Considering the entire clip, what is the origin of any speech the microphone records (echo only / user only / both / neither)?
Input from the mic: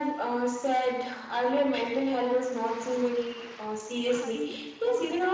both